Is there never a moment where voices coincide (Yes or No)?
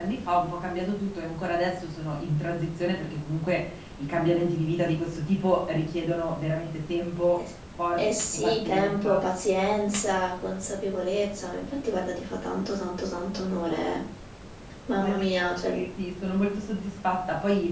No